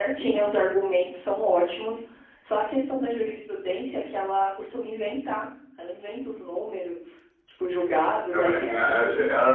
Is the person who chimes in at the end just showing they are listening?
No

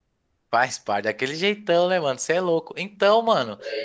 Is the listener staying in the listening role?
Yes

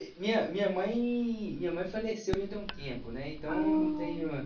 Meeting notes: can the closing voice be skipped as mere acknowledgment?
Yes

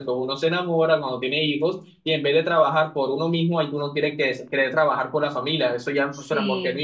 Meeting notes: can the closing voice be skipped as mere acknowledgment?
Yes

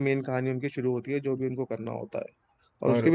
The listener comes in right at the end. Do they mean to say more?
No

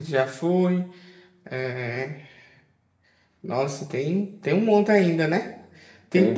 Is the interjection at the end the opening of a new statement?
Yes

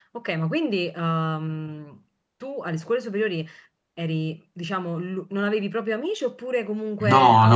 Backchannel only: No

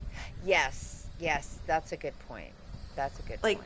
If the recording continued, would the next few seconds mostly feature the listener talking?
Yes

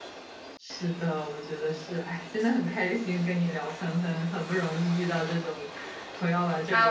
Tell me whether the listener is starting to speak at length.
Yes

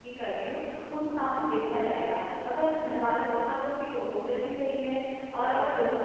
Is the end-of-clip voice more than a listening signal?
No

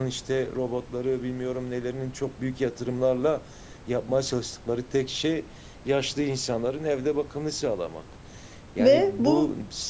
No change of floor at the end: Yes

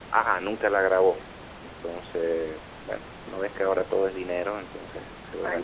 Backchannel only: Yes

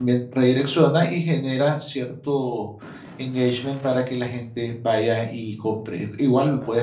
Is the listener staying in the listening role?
Yes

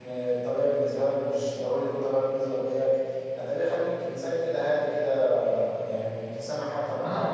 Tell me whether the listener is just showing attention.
No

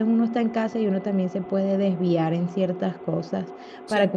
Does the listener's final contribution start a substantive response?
No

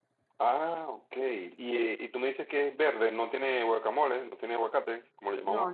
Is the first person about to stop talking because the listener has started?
Yes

